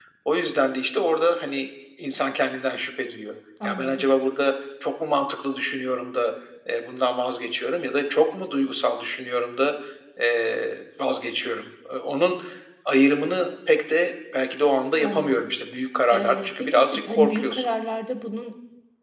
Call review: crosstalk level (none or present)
present